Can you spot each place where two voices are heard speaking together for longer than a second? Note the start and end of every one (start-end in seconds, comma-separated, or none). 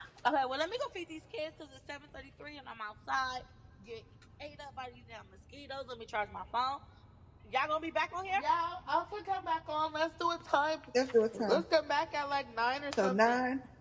none